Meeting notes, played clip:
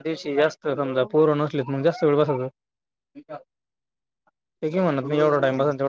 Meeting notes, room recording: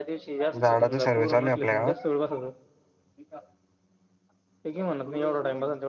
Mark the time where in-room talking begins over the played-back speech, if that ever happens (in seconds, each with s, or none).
0.6 s